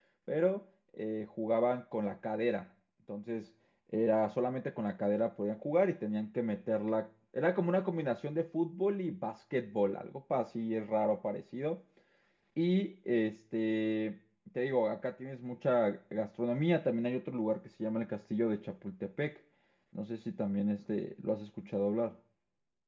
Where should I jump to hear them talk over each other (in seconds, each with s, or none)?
none